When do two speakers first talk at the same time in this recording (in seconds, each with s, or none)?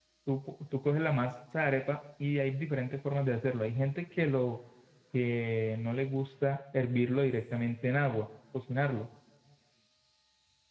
none